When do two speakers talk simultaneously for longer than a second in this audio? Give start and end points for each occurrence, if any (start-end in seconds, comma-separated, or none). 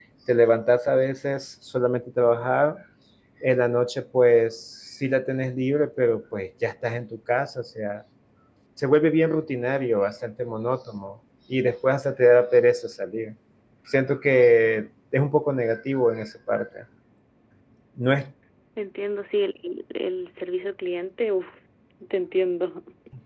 none